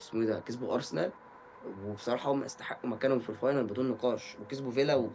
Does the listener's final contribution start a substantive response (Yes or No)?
Yes